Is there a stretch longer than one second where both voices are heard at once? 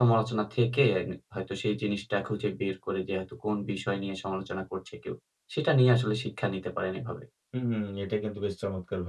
No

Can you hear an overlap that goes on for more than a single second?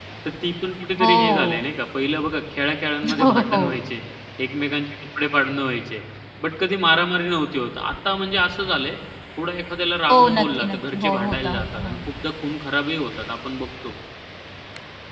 Yes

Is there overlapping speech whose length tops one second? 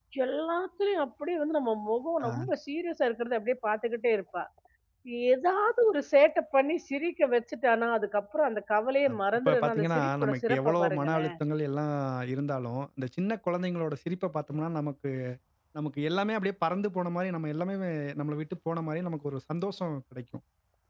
Yes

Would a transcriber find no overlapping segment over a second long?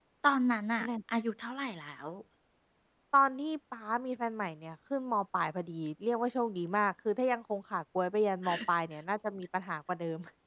Yes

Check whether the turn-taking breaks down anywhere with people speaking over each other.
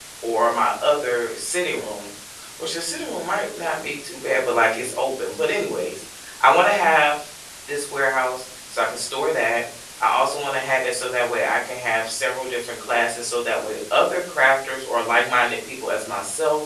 No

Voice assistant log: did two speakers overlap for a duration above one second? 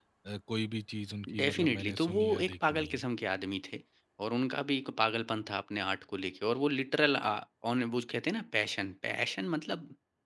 Yes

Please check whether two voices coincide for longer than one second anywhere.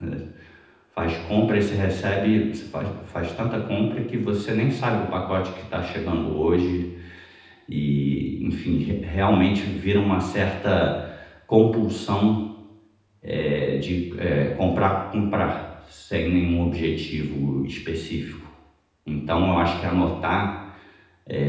No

